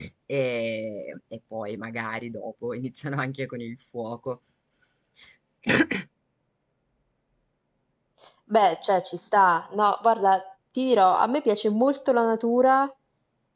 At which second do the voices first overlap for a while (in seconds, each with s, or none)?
none